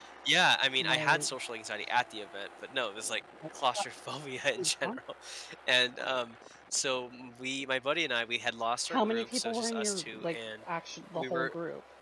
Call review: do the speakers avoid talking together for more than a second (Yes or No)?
No